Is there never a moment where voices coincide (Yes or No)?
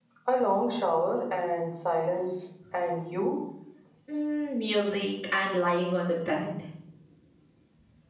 Yes